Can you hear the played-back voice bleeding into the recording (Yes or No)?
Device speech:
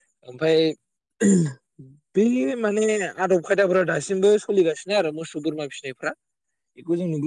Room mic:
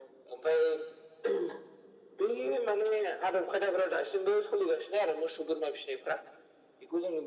Yes